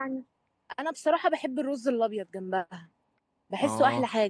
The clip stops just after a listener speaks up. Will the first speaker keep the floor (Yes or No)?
No